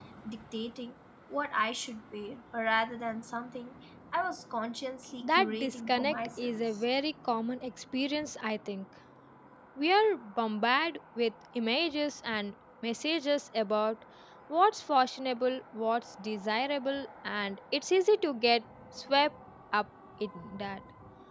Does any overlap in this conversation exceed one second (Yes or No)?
Yes